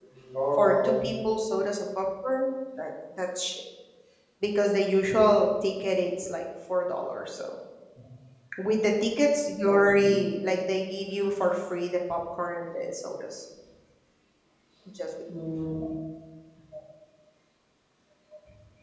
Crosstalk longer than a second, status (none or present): none